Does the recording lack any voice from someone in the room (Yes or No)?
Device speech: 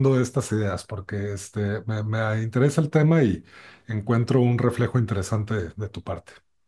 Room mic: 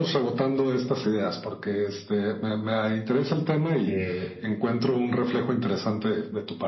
No